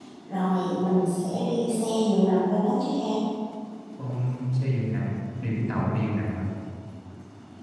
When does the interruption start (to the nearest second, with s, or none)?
none